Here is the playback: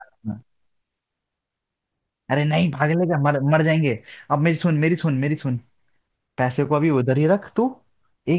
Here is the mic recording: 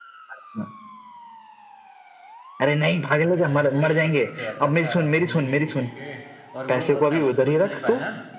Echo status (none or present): present